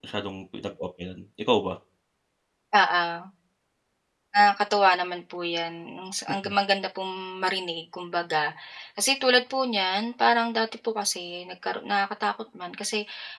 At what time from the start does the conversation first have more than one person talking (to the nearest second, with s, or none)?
none